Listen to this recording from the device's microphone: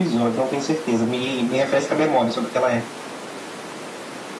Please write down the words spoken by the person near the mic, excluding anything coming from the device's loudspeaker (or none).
none